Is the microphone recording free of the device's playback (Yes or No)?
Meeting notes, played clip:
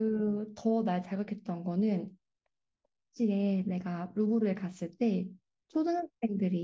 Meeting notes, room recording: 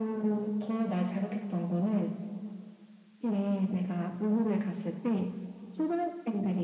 No